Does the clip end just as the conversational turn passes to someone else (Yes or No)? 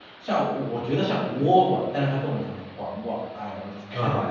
Yes